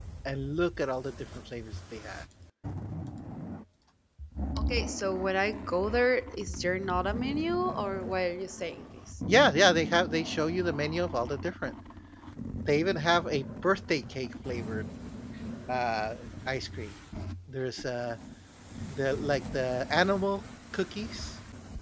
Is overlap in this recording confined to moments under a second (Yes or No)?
Yes